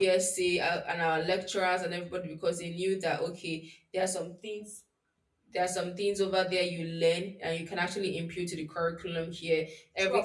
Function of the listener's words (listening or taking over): listening